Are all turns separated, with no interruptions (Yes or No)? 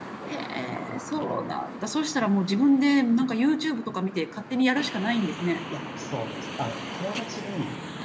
Yes